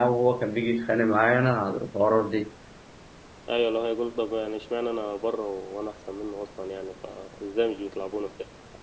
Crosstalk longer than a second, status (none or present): none